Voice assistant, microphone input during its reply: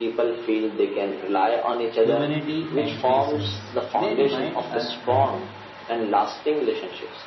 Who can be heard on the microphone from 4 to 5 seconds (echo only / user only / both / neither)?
both